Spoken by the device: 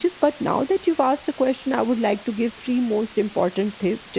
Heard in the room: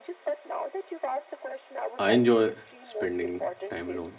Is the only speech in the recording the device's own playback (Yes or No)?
No